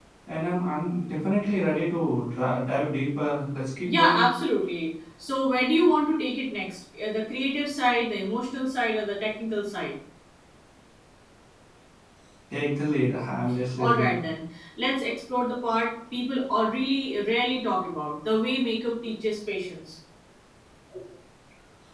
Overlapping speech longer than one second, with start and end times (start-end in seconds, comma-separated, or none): none